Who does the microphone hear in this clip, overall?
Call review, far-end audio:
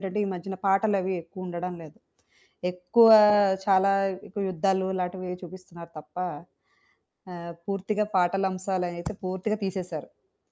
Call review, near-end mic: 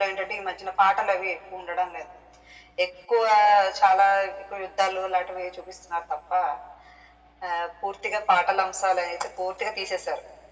echo only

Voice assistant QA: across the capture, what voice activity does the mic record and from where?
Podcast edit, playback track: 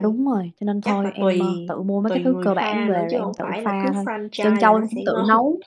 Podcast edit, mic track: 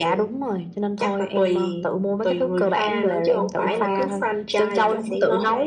both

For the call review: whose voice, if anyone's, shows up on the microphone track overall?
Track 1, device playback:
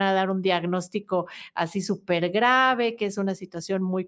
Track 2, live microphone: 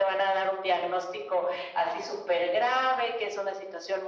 echo only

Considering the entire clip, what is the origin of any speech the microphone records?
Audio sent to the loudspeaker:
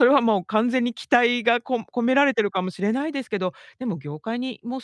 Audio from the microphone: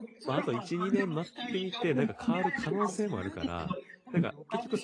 both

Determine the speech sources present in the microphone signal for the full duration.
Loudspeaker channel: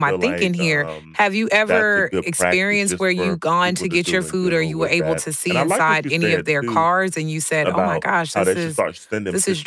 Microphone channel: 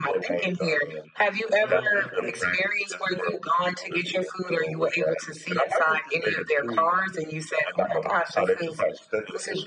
both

